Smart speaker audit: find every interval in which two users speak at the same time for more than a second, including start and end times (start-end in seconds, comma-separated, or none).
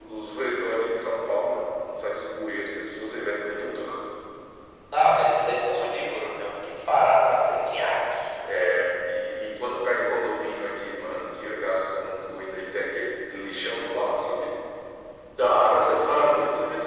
none